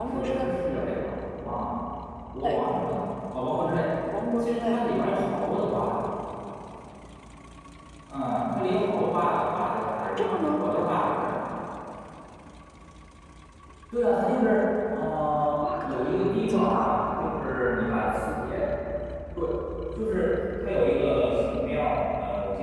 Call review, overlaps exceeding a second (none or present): present